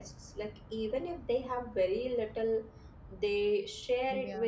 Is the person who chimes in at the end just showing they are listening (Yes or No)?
Yes